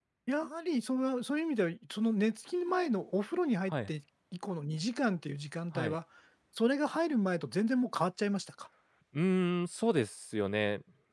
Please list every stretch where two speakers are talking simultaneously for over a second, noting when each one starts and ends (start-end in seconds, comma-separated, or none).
none